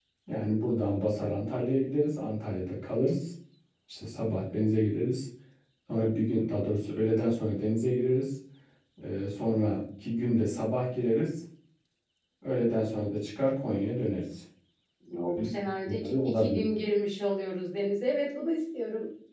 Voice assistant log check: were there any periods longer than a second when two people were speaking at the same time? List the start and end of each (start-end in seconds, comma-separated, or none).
15.4-16.6